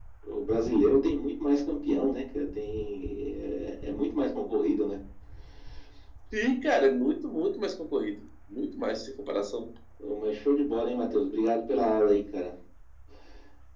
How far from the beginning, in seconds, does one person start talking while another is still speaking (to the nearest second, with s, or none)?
none